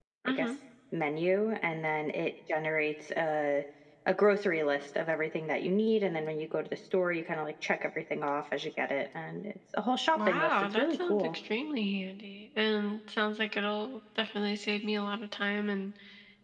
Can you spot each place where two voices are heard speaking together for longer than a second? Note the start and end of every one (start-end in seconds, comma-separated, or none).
10.2-11.3